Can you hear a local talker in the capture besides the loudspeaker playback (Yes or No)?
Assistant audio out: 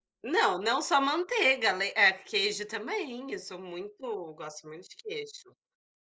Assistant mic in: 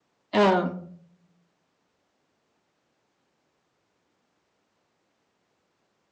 Yes